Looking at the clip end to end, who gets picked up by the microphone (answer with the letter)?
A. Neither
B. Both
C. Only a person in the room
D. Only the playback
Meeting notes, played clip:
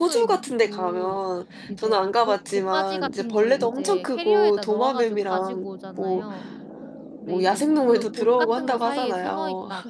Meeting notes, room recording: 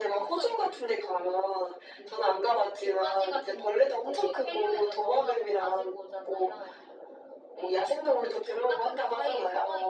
D